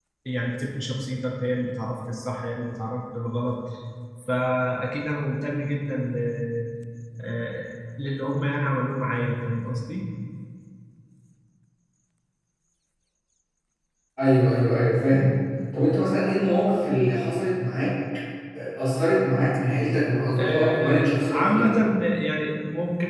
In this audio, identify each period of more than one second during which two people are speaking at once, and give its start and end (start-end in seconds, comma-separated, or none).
20.4-21.8